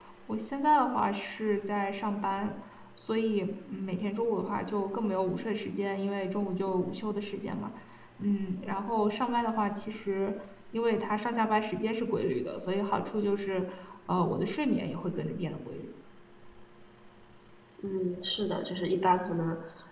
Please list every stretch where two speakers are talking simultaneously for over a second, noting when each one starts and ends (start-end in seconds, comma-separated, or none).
none